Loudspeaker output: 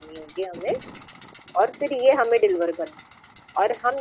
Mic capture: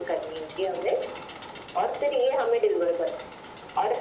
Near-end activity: none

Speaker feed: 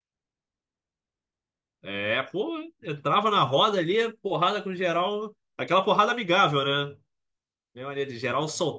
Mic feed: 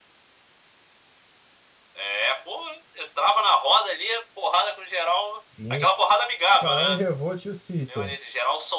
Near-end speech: present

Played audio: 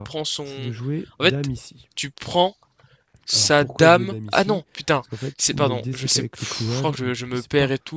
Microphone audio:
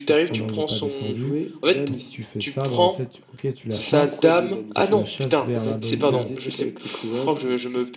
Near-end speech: present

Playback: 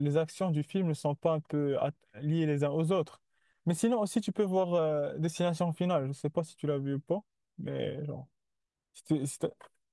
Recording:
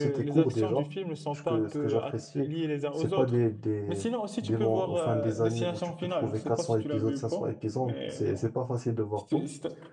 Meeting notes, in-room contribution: present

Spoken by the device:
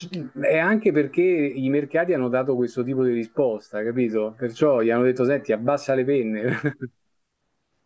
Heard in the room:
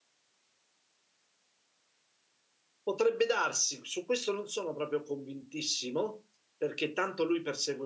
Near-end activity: present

